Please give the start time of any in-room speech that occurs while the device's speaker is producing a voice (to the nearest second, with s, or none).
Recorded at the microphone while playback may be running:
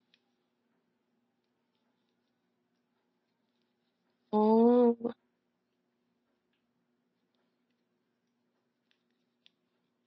4 s